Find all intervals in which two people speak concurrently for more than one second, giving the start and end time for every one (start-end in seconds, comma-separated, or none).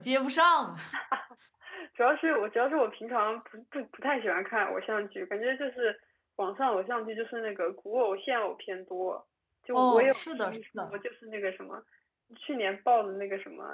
9.7-11.0